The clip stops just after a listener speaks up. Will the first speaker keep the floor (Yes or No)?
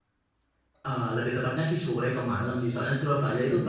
Yes